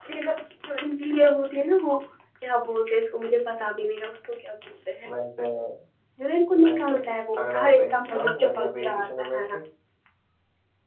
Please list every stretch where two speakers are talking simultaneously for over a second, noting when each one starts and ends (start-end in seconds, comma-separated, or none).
7.4-9.4